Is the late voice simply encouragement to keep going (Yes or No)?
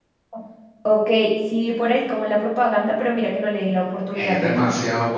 No